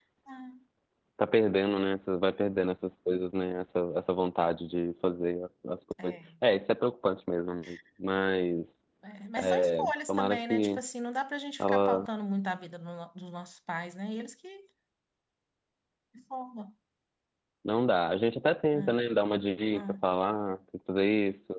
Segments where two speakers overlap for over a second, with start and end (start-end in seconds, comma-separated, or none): 9.4-10.8